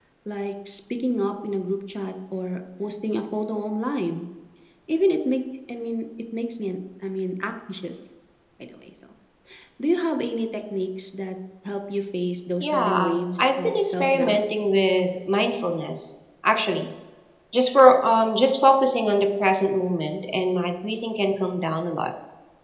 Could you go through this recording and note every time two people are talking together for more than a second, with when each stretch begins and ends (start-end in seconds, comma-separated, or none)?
12.6-14.4